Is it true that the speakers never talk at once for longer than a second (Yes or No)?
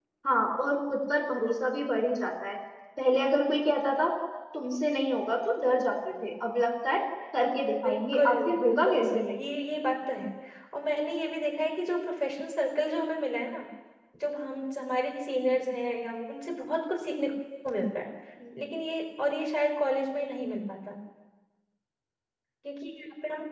No